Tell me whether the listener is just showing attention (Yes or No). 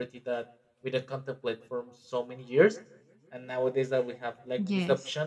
No